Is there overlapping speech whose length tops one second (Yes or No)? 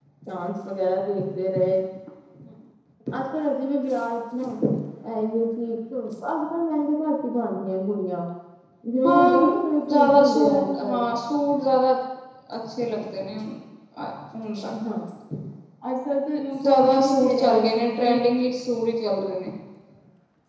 Yes